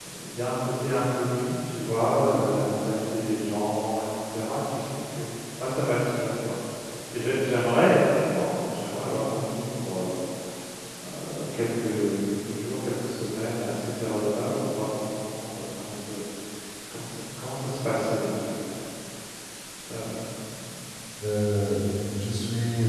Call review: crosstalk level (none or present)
none